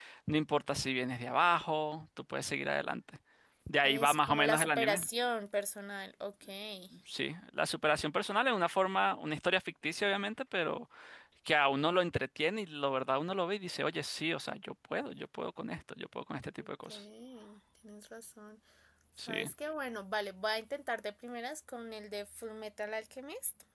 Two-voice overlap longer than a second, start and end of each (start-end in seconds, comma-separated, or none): 3.8-5.0